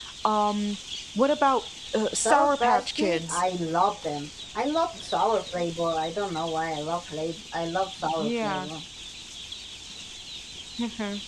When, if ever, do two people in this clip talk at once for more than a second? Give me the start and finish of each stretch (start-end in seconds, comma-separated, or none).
2.2-3.4